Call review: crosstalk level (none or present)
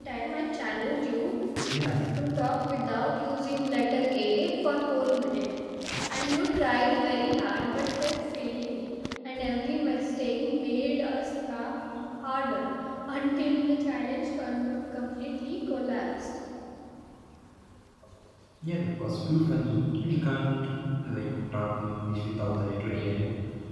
none